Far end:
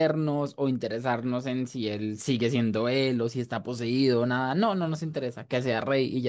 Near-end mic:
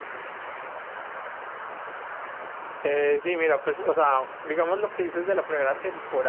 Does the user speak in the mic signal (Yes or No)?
Yes